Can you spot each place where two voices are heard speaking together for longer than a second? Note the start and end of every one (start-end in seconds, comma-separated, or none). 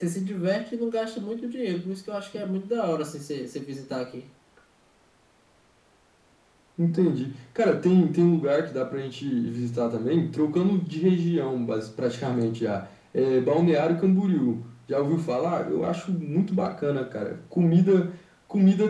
none